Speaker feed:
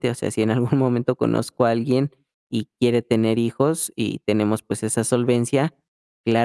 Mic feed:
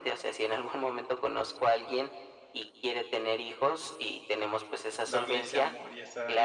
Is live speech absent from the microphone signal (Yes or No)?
No